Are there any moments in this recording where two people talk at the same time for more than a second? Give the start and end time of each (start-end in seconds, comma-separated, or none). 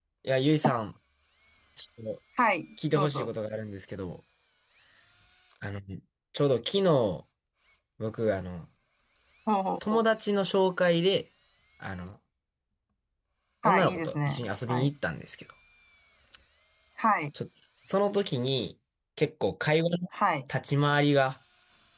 13.6-14.9